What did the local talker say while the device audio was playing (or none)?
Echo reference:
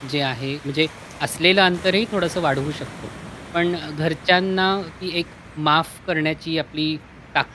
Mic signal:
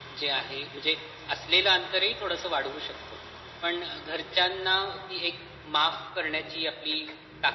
none